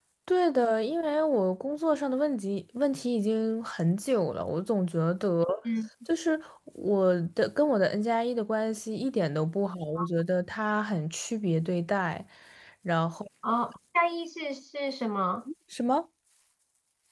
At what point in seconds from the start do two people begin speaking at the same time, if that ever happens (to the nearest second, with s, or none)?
none